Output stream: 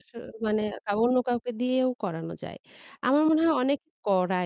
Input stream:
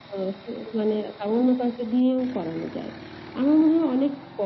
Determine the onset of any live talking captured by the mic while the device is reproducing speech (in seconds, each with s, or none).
none